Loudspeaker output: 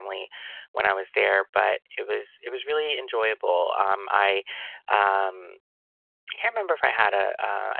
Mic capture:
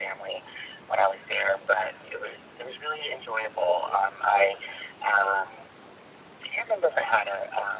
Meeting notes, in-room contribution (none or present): none